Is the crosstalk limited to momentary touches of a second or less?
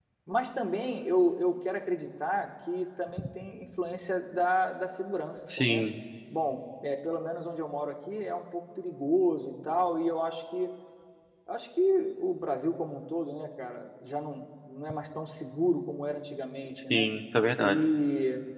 Yes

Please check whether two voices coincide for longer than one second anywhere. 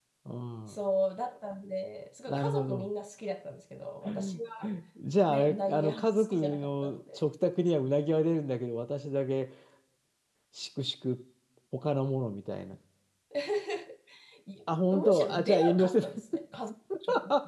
Yes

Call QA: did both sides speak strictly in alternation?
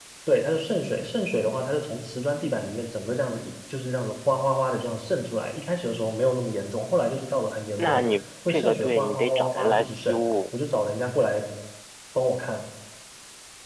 No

